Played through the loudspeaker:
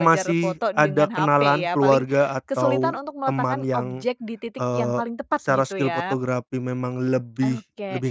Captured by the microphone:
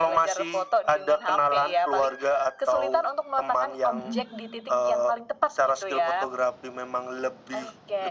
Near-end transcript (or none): Mhm.